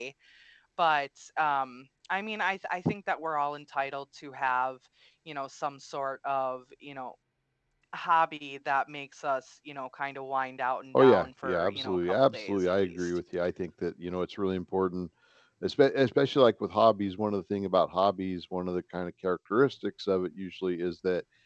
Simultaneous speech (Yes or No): Yes